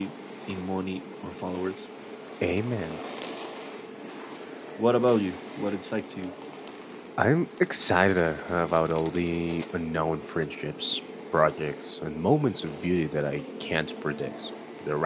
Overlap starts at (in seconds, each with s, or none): none